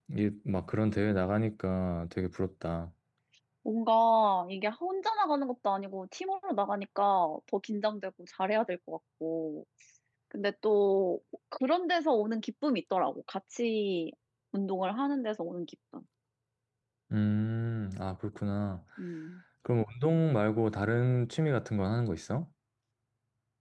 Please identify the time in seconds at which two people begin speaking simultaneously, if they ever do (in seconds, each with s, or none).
none